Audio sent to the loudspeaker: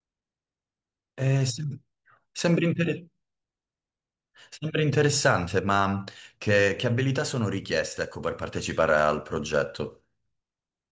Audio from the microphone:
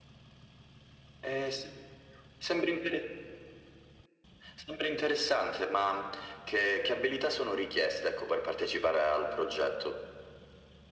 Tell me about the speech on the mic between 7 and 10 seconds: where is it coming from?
echo only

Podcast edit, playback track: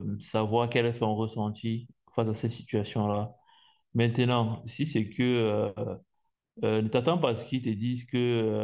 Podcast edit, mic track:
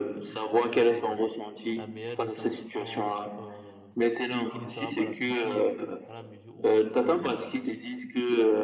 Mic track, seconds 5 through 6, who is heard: both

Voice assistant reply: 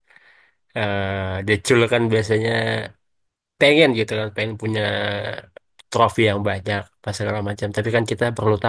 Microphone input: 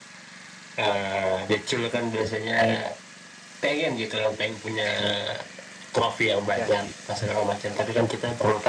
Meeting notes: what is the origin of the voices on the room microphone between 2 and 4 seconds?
echo only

